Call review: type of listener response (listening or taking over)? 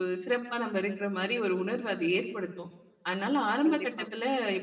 listening